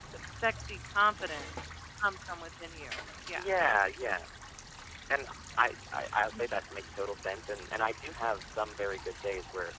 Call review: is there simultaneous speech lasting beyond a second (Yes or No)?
No